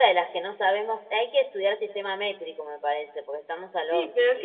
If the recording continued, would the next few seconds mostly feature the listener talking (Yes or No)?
Yes